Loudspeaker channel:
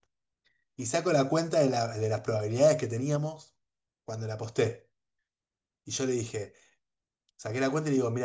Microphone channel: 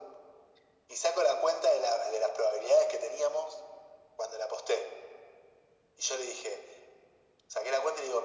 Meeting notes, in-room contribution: none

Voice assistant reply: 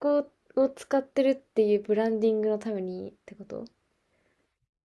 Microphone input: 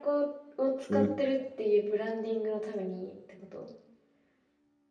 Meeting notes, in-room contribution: present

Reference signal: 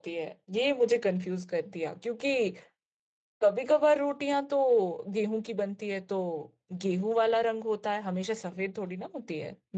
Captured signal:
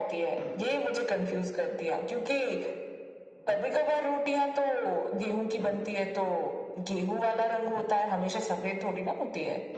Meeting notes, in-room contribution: none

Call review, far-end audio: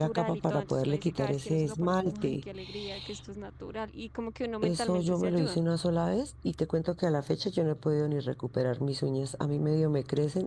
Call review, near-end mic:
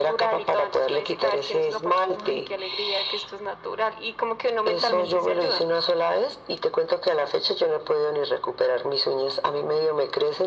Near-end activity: present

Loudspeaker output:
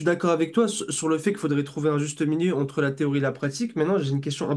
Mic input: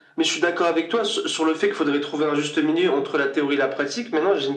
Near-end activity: none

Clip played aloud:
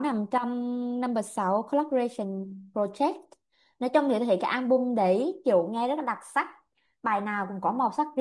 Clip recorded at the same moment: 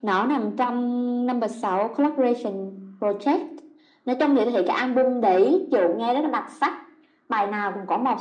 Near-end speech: none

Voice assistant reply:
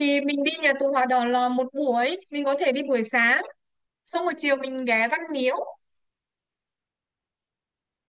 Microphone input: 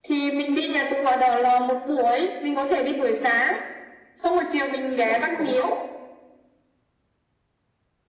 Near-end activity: present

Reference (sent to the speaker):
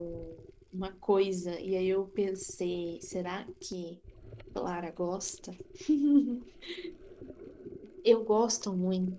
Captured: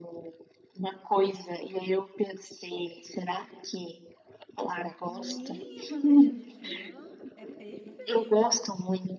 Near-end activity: present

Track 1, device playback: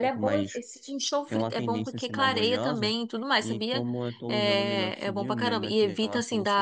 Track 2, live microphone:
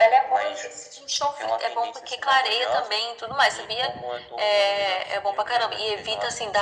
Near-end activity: none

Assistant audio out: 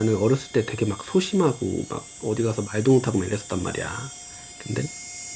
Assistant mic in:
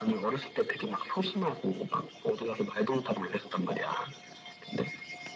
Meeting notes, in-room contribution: none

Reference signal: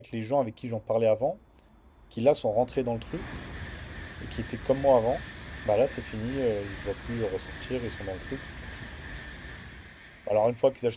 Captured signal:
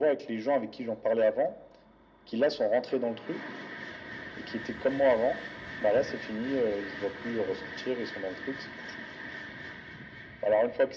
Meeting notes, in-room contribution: none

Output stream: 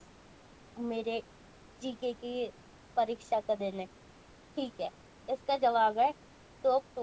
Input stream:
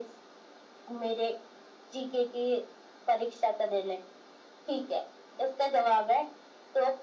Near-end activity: none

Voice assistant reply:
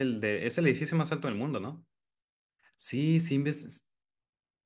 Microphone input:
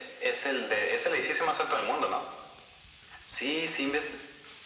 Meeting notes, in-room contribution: none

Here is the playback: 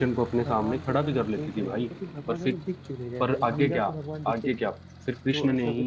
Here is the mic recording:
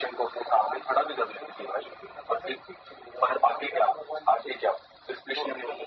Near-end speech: none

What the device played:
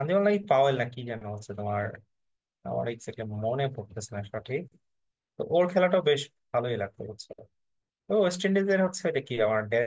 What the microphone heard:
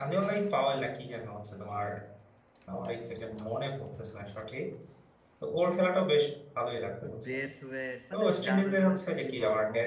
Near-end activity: present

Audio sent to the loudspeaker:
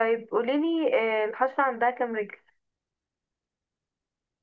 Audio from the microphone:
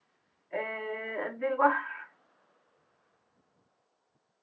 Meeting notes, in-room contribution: present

